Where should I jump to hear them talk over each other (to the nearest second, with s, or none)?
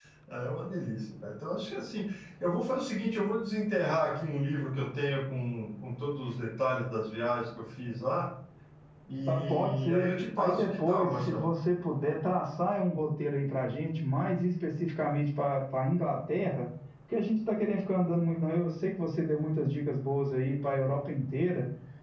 9 s